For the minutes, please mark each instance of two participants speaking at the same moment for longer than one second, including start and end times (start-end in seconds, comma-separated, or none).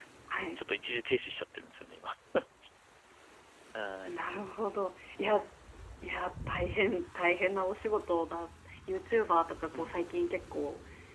none